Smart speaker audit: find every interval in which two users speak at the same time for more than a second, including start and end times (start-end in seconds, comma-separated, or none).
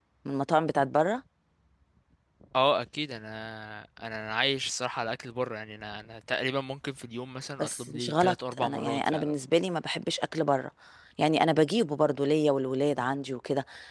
7.6-9.3